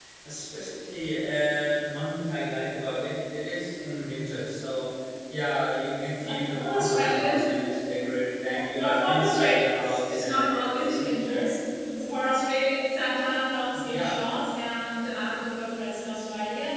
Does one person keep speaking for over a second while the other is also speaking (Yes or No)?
Yes